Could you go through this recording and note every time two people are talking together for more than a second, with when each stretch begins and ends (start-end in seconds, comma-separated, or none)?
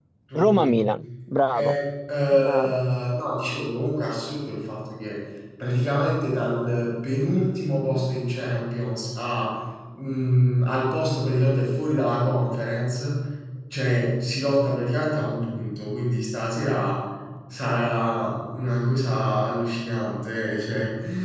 none